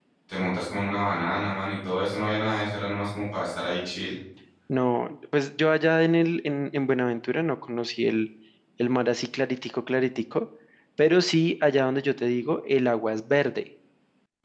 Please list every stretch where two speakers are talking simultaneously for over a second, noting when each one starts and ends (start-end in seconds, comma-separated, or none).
none